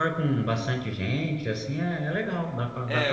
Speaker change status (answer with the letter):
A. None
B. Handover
B